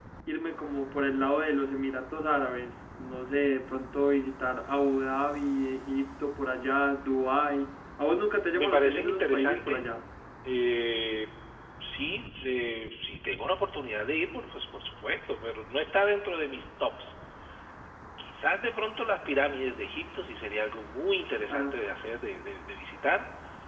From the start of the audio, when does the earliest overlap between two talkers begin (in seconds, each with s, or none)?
8.5 s